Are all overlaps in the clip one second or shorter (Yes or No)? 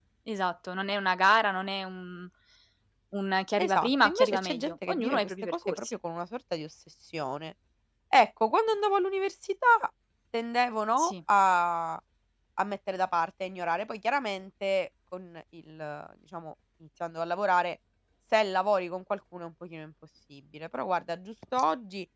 No